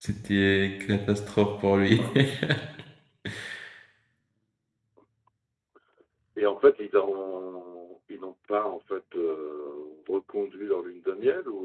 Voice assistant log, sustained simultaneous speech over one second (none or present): none